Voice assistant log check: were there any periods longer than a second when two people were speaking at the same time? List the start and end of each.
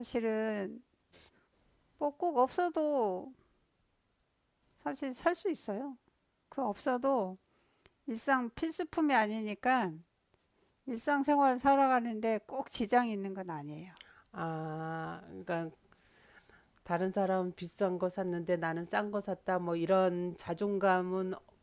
none

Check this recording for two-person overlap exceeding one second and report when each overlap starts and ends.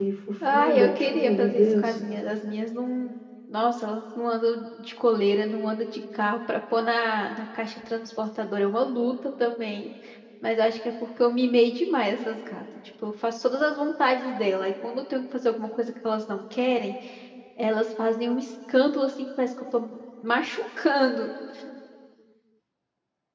0.5-1.9

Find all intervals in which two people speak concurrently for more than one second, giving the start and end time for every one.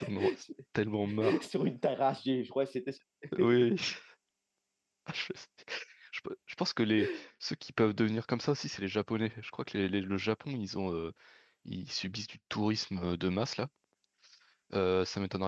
none

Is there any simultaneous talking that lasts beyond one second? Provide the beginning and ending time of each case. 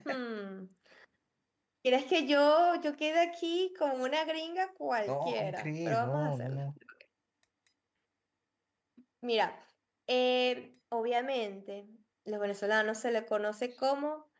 5.1-6.6

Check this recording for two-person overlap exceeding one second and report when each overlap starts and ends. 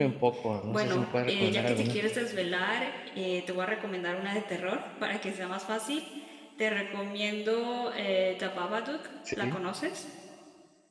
0.7-2.0

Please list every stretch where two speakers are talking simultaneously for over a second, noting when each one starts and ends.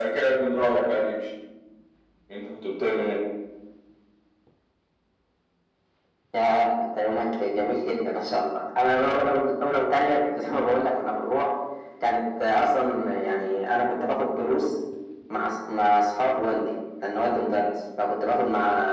none

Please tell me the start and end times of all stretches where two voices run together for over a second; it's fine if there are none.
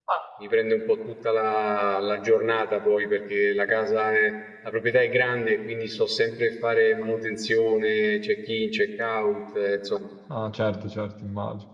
none

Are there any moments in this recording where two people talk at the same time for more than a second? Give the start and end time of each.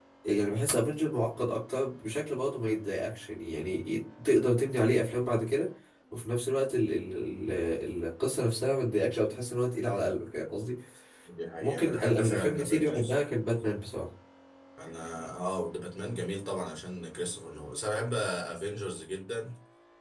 11.6-13.1

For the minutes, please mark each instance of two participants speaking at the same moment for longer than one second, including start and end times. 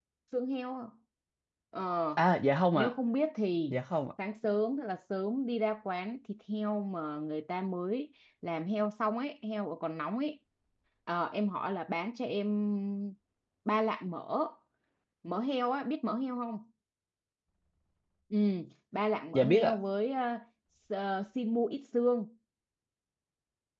none

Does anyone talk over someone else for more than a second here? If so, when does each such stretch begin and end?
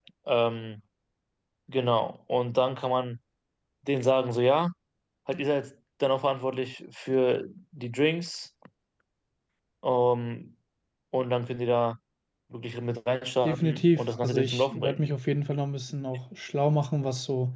13.4-15.0

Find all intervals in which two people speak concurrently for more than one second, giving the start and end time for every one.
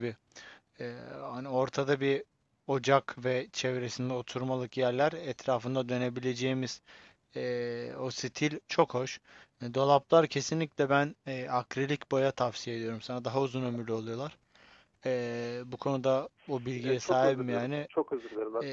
16.5-17.7

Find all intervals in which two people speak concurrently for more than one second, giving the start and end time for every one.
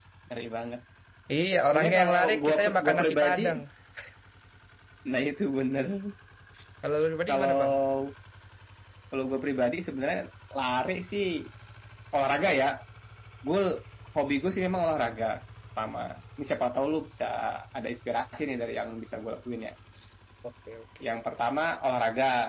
1.7-3.4

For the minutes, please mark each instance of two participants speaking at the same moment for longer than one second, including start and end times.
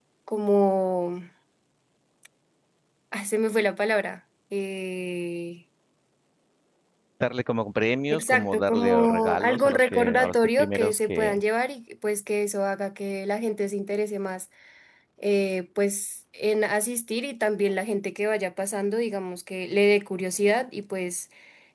8.1-11.4

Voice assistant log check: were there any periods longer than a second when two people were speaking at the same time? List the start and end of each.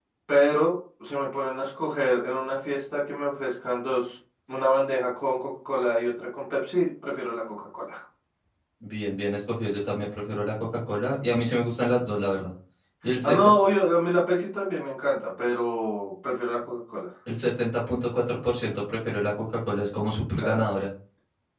none

